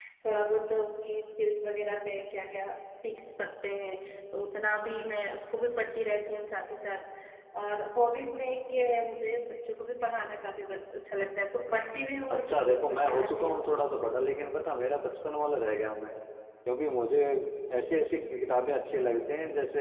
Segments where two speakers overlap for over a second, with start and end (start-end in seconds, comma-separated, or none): 12.3-13.6